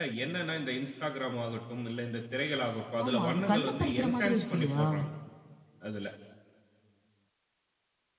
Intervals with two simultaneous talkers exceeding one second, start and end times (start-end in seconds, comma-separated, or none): 3.0-4.8